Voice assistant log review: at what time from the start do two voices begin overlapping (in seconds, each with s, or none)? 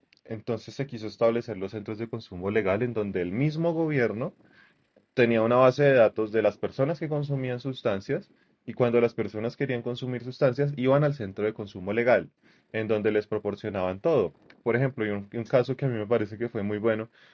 none